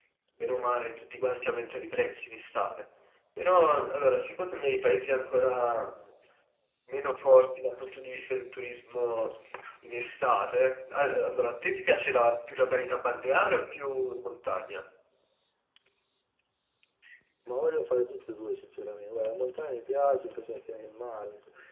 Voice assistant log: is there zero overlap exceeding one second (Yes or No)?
Yes